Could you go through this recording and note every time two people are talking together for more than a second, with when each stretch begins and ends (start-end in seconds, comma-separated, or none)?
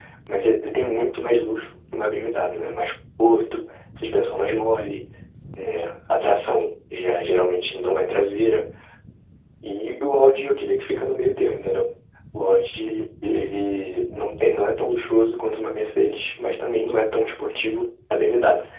none